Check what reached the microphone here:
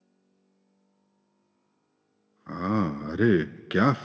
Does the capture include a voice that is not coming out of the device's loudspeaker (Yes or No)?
Yes